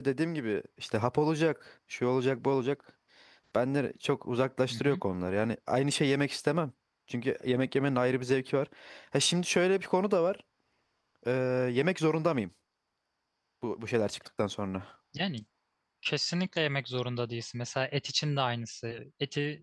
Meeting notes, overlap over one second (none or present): none